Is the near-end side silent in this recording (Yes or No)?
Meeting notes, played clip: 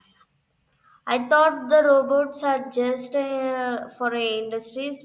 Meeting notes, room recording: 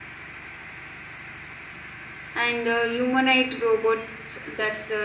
No